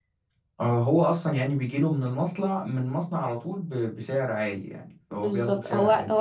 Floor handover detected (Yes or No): Yes